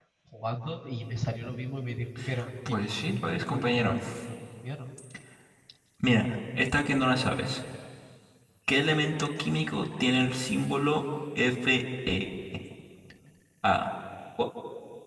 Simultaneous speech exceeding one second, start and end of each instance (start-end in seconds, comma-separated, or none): 2.7-3.9